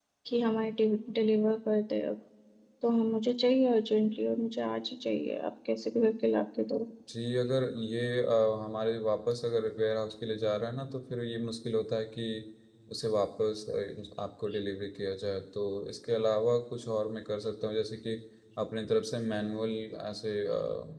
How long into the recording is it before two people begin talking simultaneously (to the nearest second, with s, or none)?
none